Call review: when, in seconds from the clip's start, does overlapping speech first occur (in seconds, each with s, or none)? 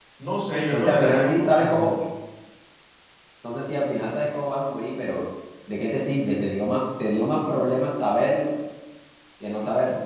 0.7 s